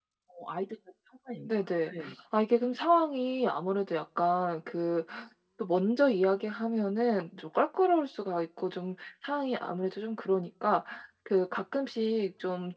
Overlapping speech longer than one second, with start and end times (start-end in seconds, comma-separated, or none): none